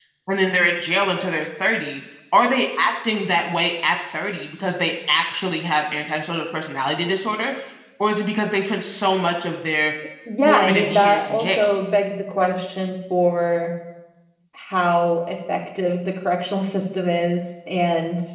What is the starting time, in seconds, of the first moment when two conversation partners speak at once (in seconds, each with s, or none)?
10.4 s